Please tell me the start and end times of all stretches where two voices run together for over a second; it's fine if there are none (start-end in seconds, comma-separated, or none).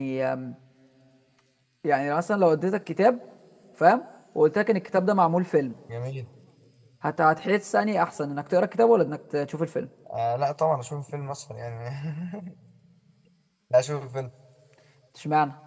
none